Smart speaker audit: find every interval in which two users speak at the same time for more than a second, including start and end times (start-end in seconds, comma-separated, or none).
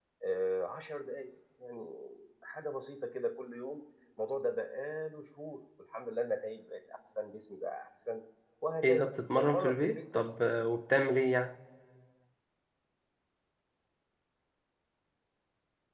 8.8-10.2